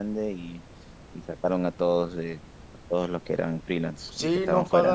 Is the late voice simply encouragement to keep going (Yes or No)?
No